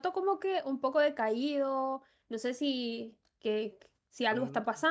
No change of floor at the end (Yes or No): Yes